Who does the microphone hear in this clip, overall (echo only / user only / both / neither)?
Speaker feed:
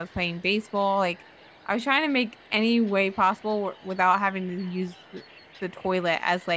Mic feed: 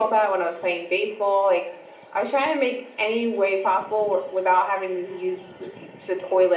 echo only